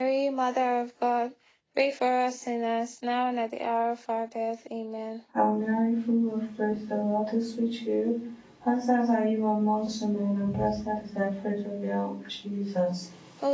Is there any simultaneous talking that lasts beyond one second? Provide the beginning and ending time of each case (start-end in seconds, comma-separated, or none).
none